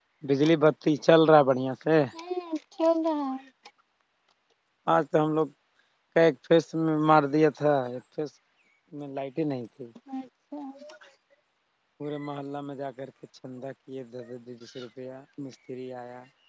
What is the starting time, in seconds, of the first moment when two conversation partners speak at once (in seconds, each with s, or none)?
none